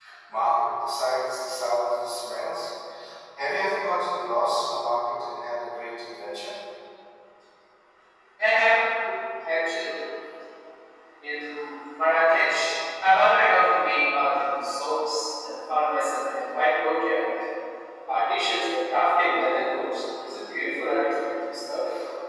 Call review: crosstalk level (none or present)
none